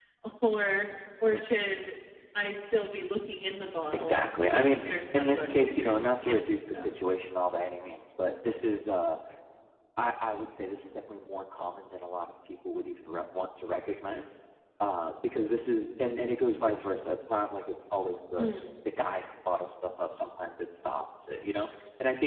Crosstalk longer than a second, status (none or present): present